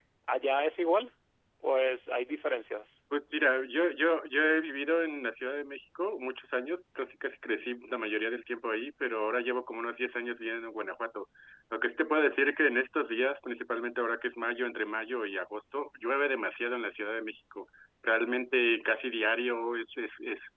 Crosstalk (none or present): none